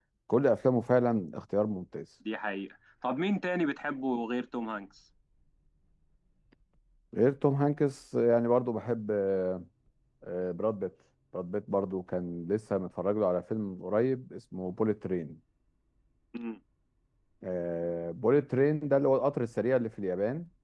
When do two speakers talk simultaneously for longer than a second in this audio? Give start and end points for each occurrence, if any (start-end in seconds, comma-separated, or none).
none